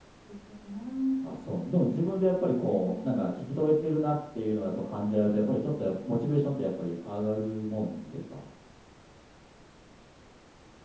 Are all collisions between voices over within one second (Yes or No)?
No